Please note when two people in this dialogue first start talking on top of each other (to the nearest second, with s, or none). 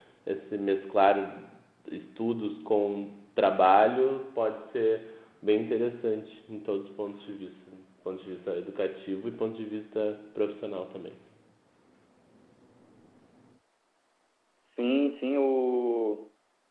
none